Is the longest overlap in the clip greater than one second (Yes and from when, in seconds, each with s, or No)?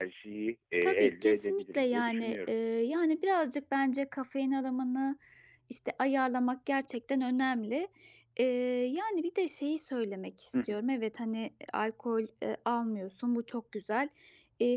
Yes, from 0.8 s